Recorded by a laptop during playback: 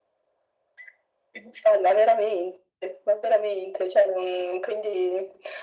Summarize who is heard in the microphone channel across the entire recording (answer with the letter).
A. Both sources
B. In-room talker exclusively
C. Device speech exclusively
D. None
C